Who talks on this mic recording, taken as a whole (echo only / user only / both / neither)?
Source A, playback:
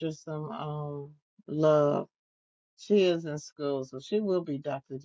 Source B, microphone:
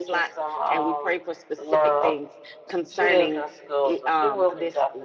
both